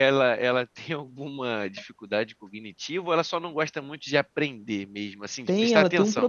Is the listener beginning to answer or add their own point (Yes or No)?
Yes